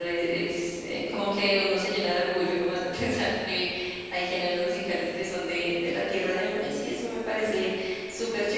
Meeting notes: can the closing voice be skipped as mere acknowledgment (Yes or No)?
Yes